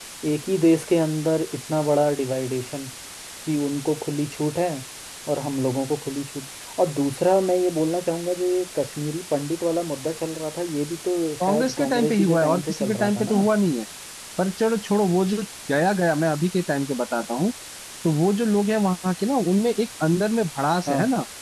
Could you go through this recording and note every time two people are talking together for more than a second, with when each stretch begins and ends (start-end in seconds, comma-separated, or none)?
11.5-13.5